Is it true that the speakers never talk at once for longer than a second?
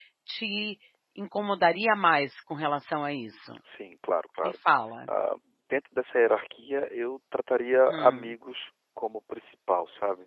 Yes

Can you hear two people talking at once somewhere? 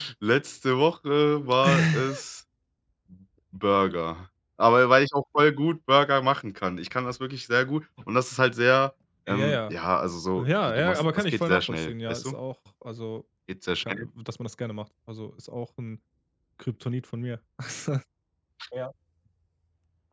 Yes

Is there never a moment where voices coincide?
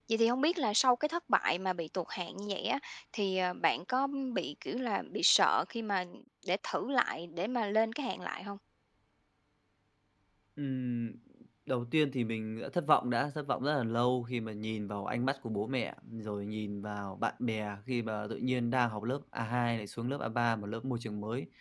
Yes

